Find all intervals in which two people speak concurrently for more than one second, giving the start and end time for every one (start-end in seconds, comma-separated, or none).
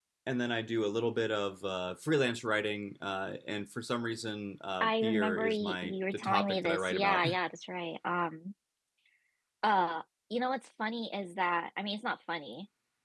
4.8-7.2